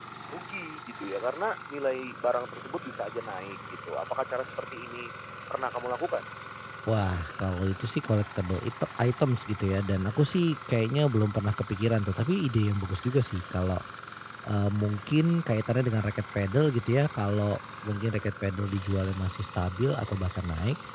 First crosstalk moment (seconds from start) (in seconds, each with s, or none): none